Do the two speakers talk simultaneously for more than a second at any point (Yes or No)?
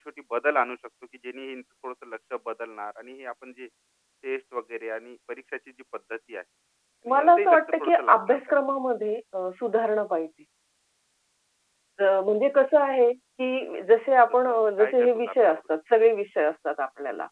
Yes